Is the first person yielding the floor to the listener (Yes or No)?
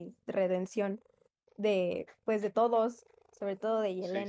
Yes